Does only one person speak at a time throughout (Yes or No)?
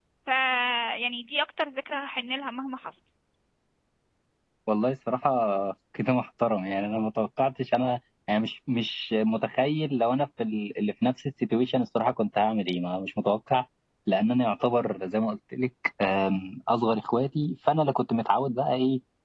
Yes